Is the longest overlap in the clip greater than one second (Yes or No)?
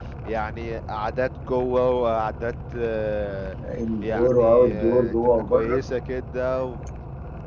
Yes